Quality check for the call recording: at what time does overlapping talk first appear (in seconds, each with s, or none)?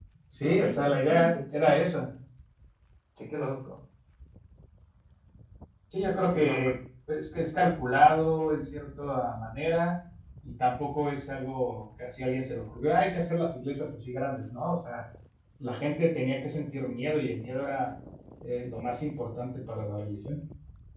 0.6 s